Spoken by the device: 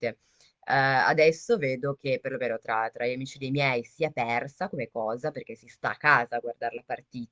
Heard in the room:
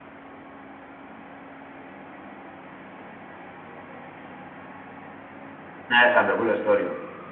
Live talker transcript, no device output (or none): Eh, vabbè, quella è storica.